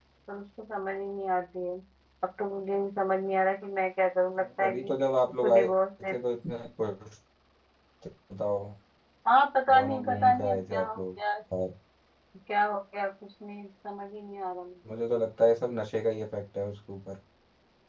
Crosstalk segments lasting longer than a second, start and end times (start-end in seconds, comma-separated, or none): 9.7-11.0